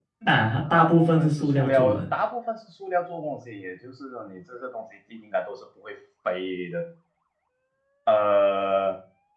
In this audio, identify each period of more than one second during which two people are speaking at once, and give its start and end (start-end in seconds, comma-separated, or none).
0.7-2.0